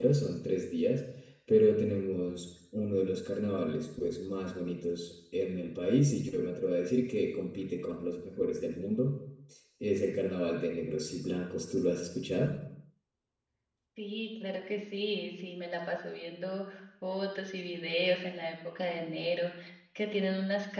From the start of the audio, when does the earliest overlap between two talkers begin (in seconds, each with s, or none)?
none